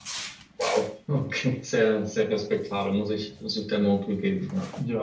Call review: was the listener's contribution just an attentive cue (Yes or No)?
No